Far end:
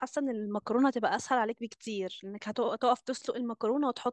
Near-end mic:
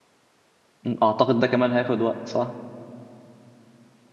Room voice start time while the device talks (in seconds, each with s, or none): 0.8 s